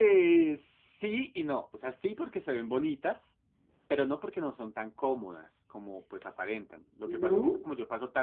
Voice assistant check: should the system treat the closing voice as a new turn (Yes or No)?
No